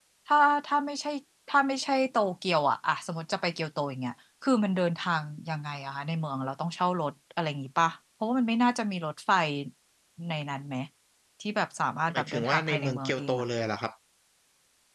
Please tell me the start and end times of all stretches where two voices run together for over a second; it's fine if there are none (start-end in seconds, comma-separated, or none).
12.1-13.4